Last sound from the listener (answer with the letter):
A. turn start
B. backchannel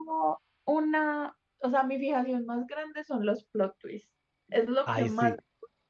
B